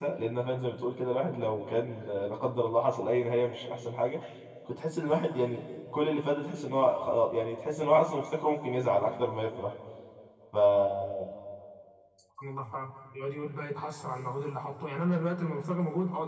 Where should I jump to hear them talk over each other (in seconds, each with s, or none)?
none